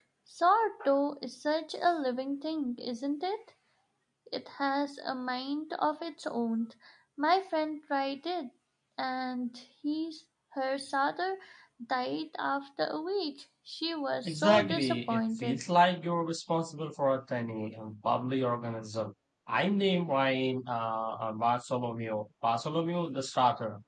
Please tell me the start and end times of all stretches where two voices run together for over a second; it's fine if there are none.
14.2-15.6

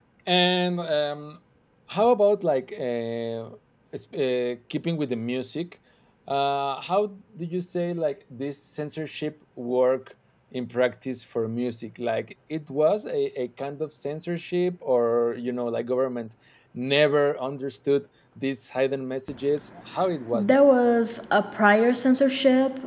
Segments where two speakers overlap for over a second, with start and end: none

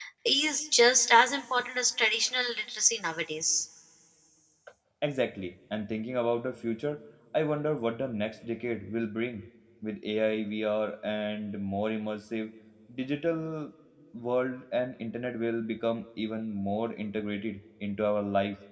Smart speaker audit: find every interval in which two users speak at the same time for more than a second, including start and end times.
none

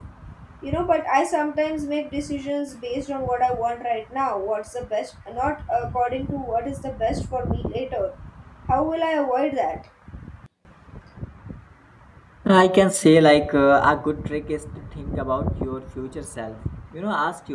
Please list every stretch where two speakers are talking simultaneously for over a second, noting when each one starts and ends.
none

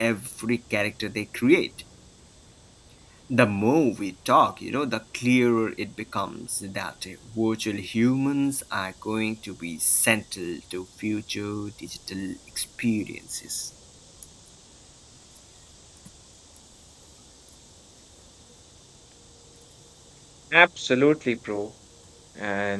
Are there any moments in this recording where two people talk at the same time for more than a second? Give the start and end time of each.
none

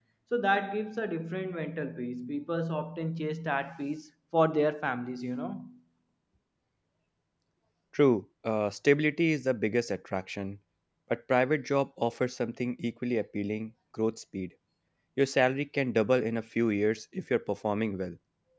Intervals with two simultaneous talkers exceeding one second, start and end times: none

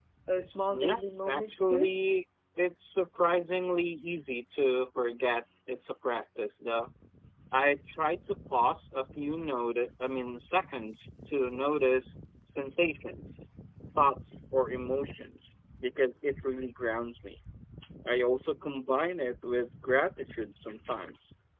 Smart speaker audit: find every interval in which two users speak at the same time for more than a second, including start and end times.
0.7-1.9

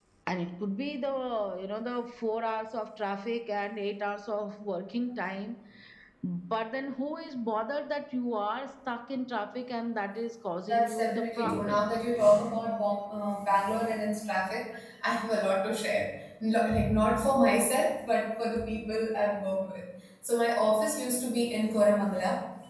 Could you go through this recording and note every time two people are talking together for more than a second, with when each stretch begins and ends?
10.7-11.9

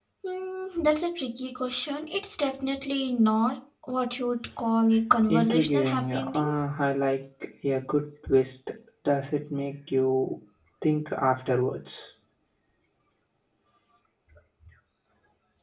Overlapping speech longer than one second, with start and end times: 5.3-6.5

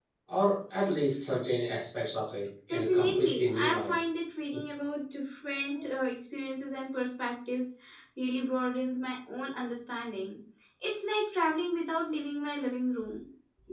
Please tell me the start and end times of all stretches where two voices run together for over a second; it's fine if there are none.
2.7-4.0

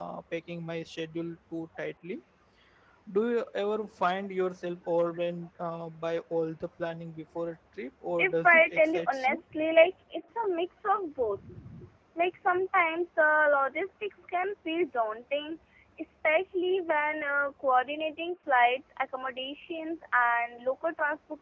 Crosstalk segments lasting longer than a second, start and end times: 8.2-9.4

